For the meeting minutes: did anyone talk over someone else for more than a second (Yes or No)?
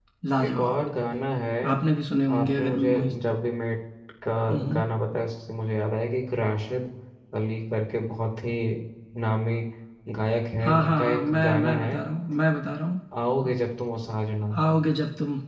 Yes